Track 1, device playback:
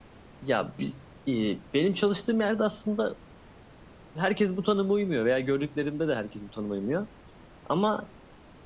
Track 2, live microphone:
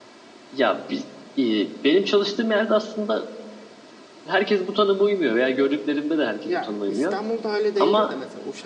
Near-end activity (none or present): present